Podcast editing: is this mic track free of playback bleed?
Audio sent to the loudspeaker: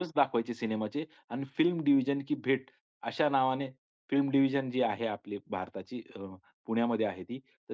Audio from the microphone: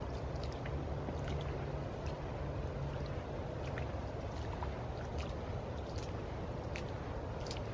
Yes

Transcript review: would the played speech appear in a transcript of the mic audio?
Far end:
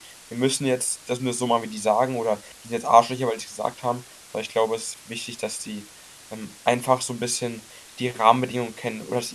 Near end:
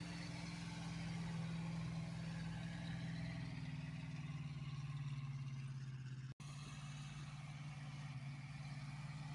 No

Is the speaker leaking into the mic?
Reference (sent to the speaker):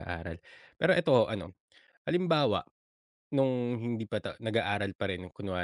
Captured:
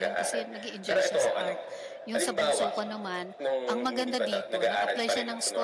Yes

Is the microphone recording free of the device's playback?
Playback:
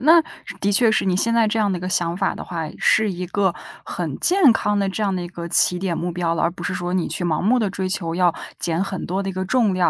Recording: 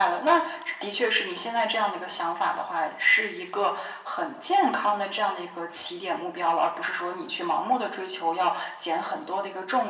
No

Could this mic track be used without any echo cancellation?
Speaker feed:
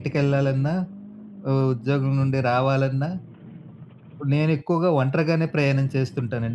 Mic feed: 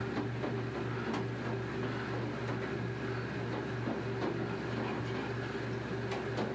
Yes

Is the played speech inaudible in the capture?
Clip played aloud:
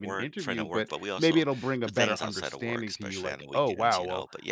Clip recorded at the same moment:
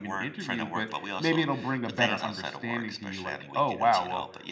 No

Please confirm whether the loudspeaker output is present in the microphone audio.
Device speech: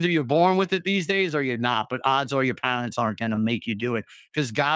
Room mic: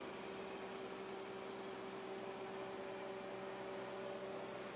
No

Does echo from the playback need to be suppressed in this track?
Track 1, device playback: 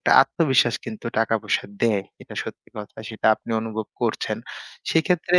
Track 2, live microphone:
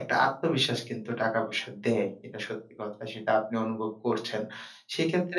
Yes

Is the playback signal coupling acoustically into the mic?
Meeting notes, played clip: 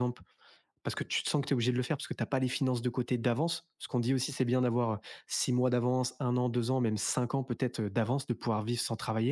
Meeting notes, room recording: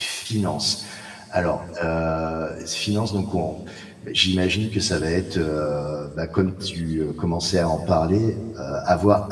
No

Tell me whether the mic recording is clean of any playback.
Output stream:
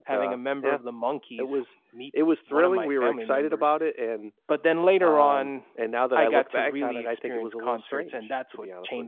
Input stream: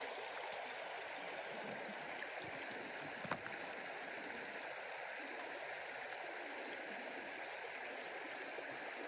Yes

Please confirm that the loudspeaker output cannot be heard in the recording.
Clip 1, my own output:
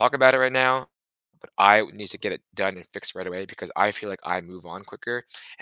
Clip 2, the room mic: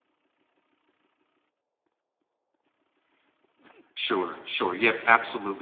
Yes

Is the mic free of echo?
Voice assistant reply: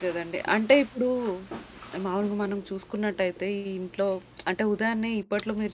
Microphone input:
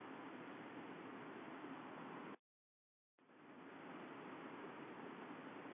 Yes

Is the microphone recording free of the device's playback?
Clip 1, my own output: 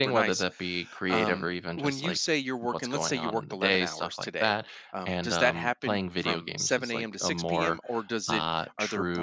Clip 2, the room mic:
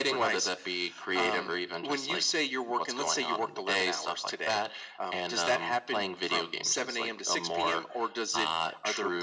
No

